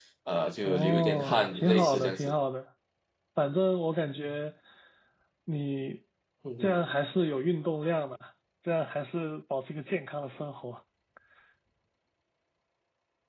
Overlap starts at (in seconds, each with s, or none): 0.7 s